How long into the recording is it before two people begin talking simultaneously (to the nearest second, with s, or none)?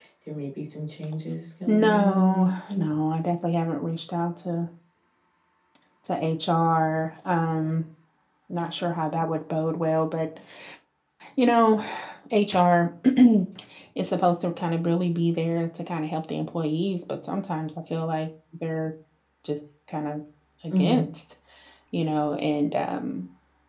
2 s